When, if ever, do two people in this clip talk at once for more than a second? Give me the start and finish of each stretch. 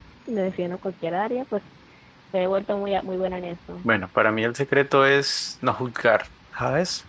none

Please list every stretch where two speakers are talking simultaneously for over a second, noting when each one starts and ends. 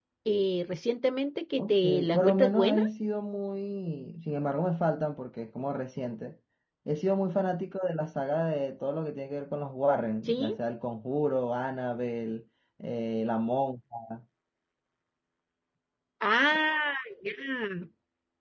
1.6-2.8

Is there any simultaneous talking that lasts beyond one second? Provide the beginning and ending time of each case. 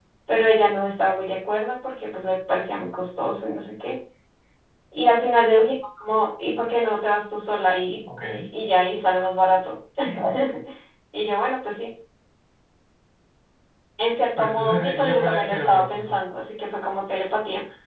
14.4-16.1

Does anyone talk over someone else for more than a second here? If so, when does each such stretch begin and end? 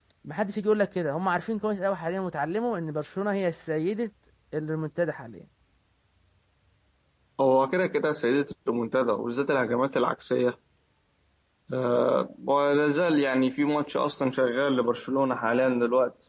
none

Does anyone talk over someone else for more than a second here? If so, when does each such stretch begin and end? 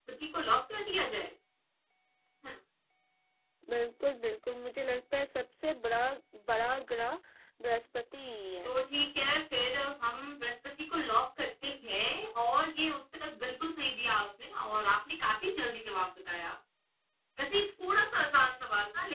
none

